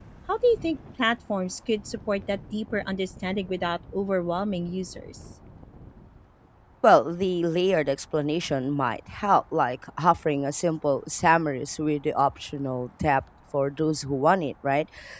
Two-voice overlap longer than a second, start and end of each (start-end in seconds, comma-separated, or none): none